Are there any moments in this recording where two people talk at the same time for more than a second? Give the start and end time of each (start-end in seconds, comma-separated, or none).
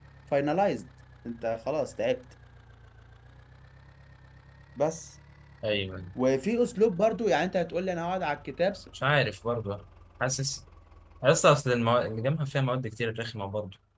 none